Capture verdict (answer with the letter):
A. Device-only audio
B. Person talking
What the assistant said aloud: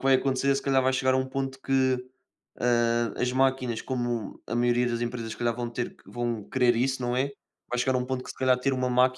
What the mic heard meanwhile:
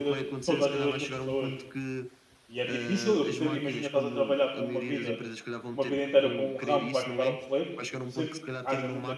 B